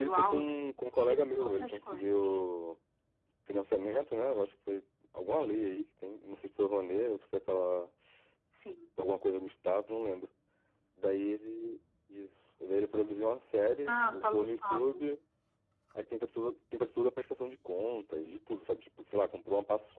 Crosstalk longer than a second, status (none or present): present